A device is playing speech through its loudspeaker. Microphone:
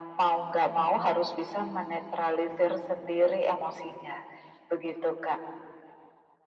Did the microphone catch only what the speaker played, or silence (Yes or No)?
No